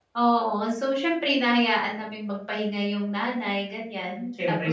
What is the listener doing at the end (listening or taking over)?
listening